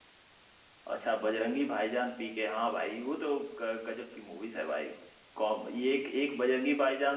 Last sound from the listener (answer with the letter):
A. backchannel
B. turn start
A